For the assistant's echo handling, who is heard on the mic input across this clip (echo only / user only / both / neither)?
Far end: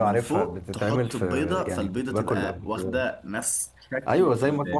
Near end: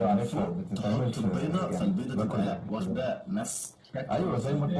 echo only